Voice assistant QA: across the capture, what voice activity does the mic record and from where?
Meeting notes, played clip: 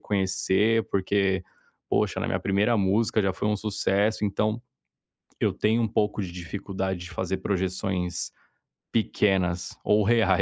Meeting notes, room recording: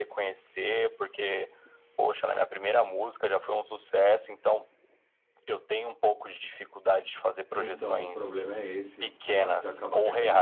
both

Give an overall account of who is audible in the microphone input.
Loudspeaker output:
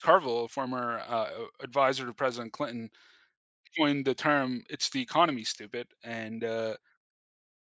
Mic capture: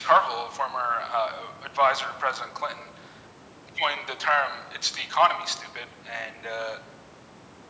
echo only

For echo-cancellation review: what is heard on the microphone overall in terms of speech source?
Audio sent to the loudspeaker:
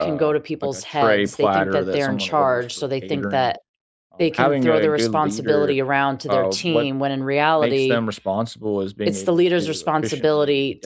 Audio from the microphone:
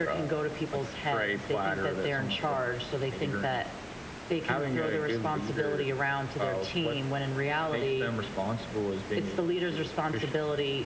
echo only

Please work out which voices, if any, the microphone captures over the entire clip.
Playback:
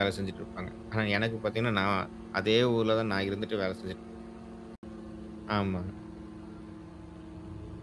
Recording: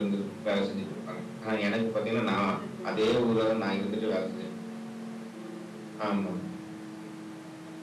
both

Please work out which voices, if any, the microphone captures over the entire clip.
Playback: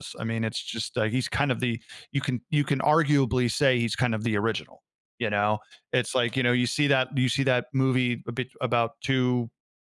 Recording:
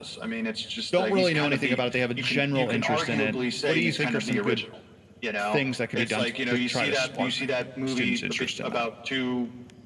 both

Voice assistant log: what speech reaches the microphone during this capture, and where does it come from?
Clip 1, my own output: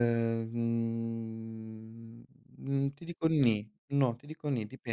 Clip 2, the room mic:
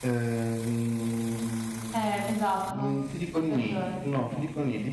both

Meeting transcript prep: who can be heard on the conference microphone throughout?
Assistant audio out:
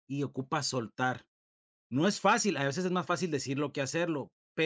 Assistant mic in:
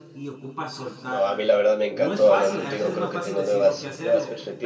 both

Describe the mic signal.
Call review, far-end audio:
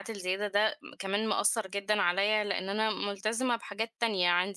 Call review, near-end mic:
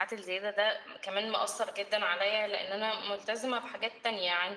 echo only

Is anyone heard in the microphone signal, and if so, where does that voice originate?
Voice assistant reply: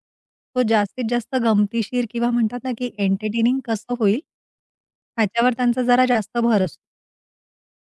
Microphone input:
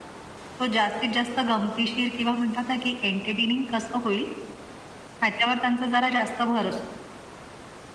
echo only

